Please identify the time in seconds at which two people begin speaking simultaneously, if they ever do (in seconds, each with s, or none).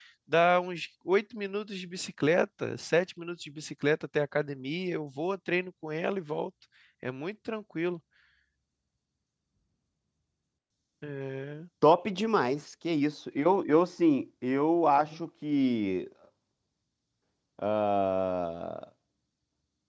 none